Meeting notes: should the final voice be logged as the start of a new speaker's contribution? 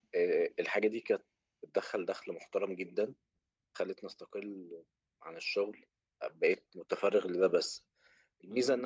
No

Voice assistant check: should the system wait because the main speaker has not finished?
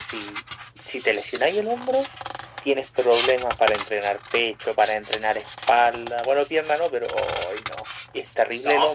No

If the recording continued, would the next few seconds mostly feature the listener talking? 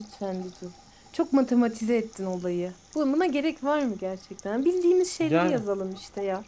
No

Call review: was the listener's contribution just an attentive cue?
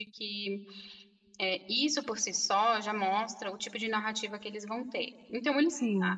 Yes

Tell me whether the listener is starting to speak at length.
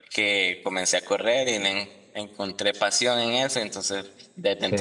No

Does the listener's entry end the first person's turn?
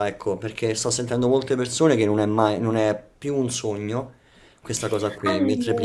No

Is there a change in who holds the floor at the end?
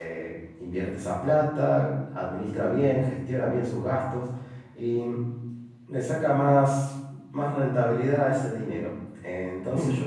No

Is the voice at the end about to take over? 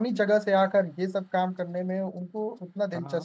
Yes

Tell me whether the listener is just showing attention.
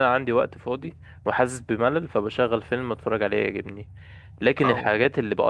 Yes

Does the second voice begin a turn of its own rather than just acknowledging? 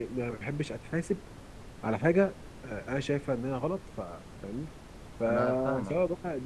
No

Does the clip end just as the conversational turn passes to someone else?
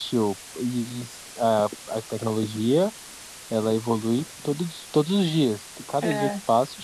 No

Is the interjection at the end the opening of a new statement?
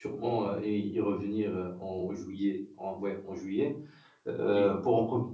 No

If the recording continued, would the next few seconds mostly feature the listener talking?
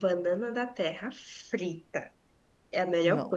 No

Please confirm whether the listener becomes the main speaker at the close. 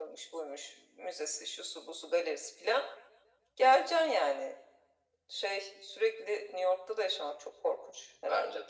Yes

